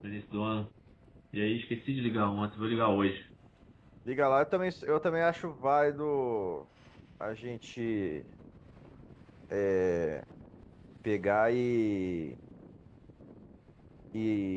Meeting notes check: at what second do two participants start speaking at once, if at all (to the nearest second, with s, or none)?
none